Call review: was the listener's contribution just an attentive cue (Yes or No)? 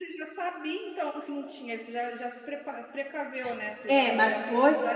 No